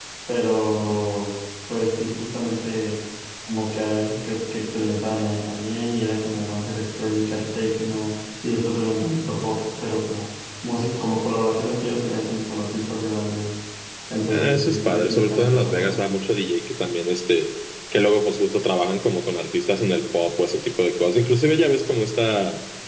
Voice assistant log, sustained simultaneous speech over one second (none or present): present